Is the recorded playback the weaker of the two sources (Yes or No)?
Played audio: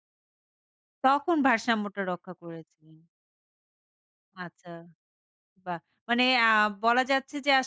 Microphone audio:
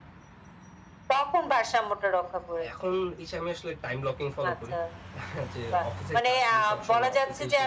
No